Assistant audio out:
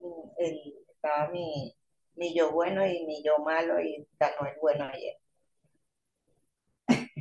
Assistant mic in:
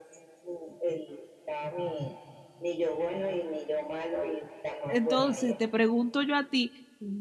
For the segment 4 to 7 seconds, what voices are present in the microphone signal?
both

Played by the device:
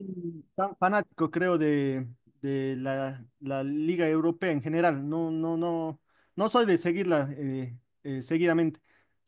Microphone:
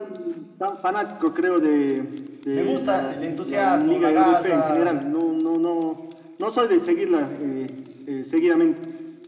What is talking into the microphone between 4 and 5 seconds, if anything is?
both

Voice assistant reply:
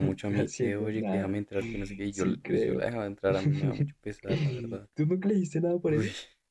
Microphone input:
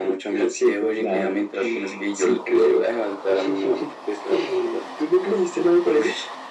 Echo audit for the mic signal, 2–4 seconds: echo only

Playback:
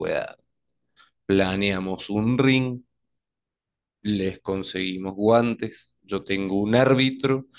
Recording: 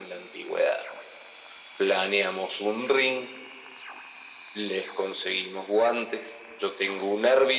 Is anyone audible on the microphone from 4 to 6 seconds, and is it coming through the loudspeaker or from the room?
echo only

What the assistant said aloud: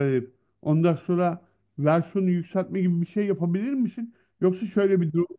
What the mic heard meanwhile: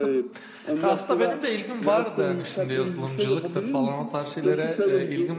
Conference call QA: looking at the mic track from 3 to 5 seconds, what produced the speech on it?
both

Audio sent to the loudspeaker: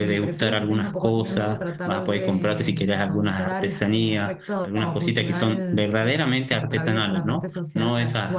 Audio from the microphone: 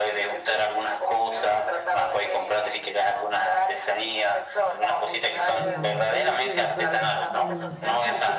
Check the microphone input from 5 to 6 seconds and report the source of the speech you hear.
both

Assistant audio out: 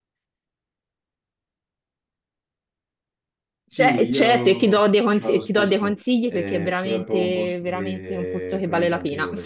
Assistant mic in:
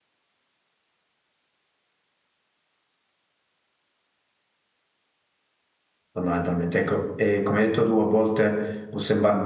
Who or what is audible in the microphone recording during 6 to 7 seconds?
user only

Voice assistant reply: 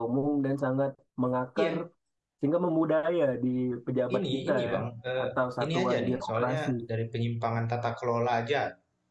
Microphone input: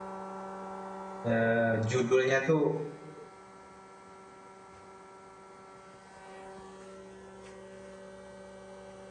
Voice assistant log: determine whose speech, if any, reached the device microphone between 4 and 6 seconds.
neither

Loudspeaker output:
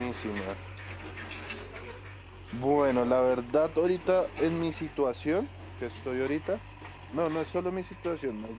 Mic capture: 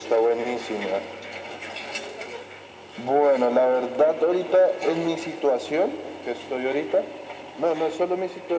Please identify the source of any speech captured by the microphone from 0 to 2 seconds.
echo only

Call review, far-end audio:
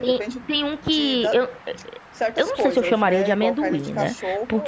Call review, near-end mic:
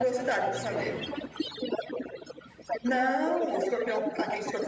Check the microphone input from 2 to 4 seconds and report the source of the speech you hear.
both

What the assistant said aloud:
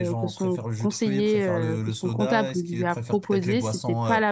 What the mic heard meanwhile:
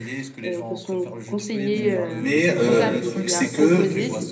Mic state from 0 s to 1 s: echo only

